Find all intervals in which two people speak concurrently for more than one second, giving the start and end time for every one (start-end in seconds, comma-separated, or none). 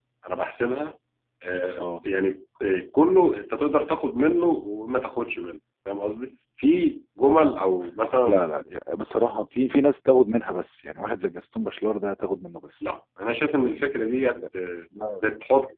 none